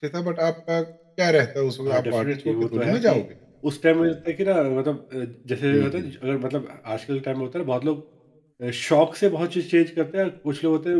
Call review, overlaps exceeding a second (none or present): present